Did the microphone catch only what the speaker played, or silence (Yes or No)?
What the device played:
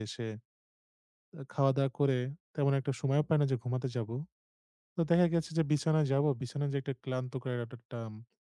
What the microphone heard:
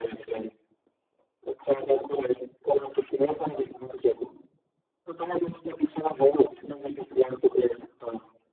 Yes